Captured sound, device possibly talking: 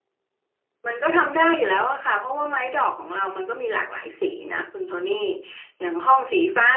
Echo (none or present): none